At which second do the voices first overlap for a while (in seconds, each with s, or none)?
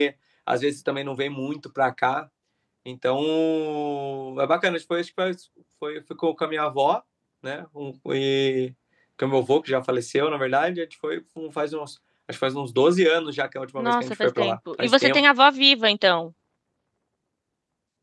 13.8 s